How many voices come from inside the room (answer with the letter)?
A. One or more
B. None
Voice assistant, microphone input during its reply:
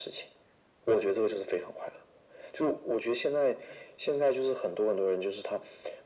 B